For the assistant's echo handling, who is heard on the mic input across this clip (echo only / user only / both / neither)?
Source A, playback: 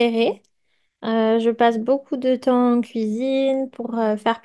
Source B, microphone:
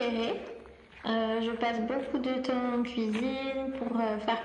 echo only